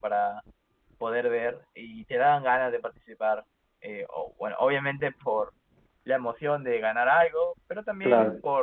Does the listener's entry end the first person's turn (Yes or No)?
No